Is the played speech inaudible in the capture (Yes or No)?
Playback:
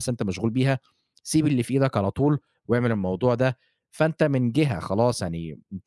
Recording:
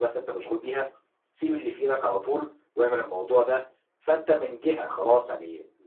No